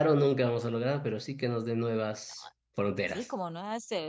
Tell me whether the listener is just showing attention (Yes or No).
No